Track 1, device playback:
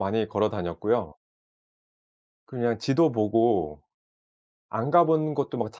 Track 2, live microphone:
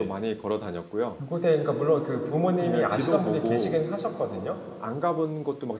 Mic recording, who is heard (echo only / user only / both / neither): both